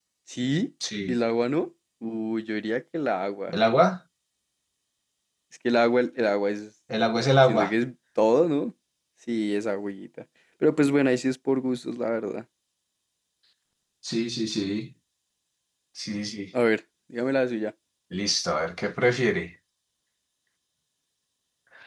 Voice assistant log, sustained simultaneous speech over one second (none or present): none